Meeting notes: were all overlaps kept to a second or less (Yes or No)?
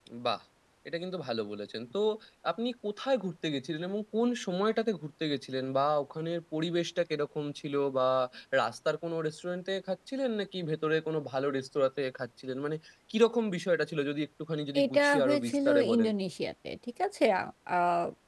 No